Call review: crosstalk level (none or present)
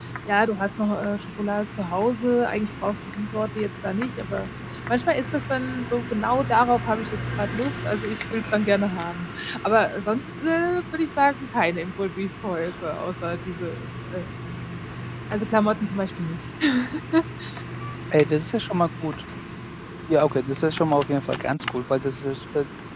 none